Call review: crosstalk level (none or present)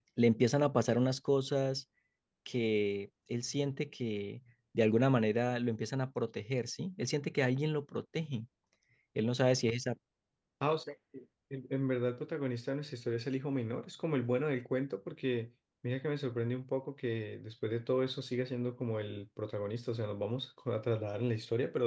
none